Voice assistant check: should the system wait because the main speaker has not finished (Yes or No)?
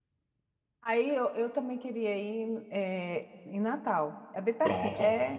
No